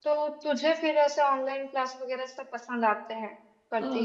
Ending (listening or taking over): taking over